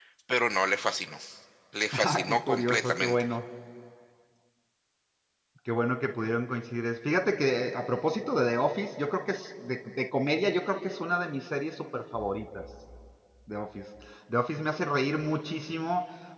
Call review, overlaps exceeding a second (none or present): present